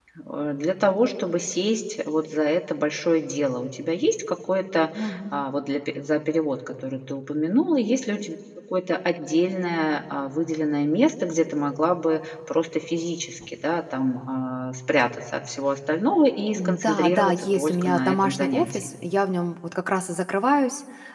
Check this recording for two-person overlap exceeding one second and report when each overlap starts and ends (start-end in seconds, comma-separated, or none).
16.6-18.9